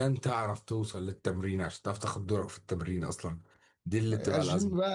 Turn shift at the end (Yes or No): Yes